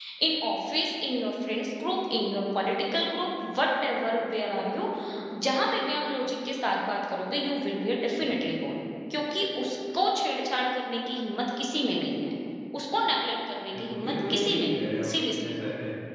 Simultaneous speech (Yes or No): Yes